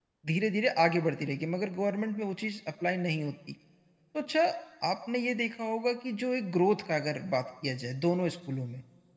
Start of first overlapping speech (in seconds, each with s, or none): none